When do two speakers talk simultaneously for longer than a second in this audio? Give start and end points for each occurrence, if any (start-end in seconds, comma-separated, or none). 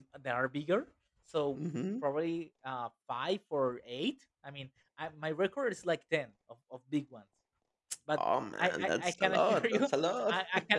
8.6-9.9